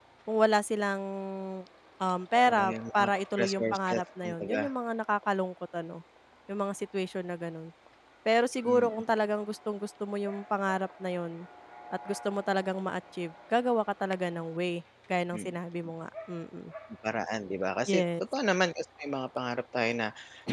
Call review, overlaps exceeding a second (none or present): present